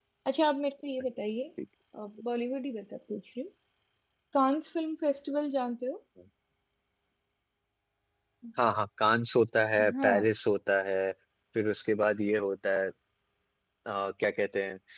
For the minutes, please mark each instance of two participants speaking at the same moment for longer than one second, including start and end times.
none

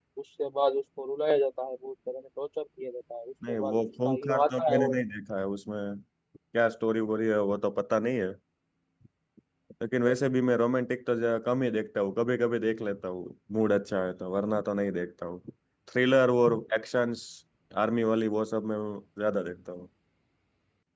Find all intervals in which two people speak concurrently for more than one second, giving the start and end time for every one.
3.5-5.0

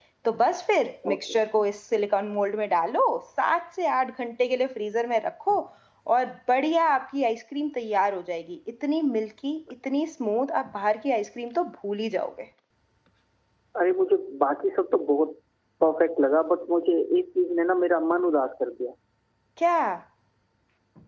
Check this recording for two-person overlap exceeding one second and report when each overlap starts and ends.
none

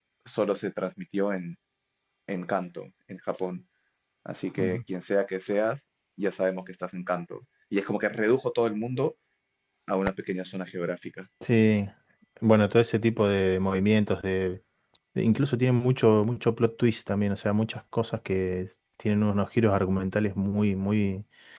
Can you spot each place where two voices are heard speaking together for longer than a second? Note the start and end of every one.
none

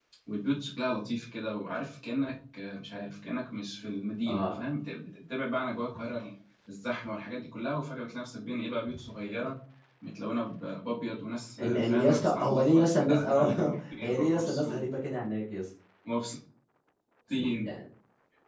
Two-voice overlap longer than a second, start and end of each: 11.6-14.8

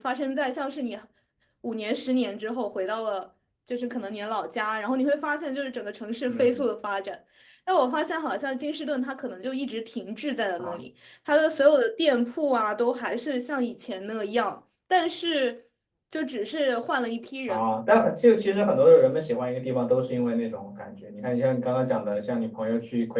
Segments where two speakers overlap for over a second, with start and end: none

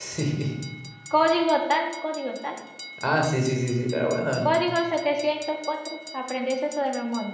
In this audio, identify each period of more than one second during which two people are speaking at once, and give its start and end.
none

